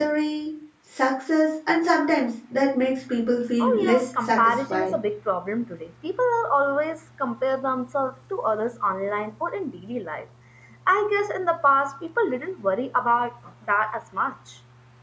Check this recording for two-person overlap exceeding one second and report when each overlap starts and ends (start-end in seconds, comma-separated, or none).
3.6-4.9